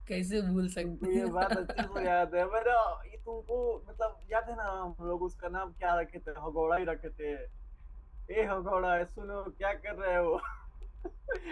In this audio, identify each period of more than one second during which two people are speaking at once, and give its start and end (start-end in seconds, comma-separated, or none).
0.8-2.1